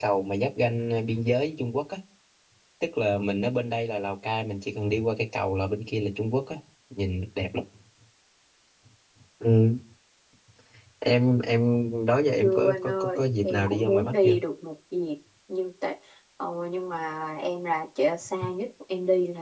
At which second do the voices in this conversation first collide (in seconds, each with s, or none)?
12.4 s